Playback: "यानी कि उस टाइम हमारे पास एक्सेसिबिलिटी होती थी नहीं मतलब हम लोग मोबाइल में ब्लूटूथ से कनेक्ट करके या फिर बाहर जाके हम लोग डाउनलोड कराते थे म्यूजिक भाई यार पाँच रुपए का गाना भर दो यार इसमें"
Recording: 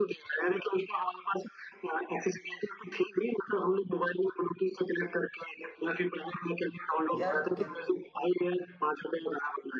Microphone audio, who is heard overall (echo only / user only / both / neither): both